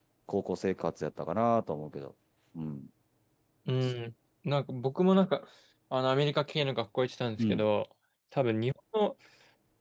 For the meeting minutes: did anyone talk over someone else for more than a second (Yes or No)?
No